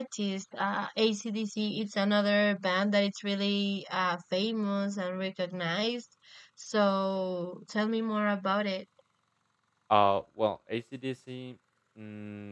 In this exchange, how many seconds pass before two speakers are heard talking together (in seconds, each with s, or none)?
none